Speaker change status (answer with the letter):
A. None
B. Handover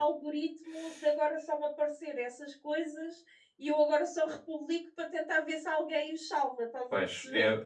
B